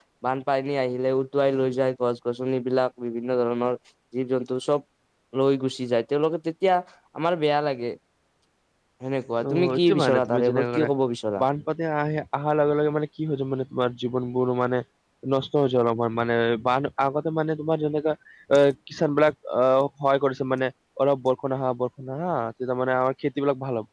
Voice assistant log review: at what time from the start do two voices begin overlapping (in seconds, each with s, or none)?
9.4 s